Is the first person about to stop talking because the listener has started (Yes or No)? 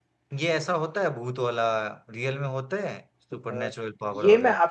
Yes